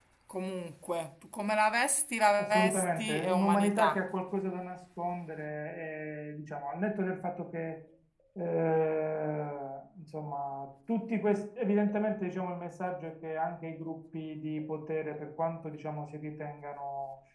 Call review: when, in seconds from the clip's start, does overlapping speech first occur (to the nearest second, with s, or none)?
2 s